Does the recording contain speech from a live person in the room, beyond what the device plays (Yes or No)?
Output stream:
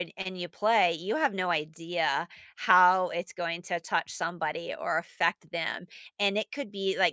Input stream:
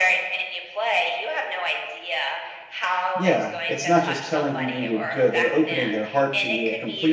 Yes